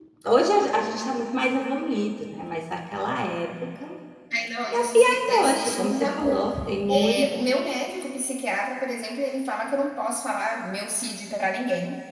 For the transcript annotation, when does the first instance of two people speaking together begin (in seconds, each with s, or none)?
4.7 s